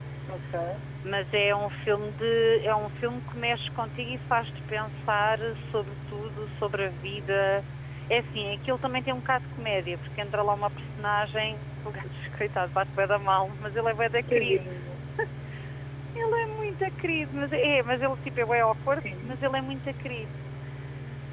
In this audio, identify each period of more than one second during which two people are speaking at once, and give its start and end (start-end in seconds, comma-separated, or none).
none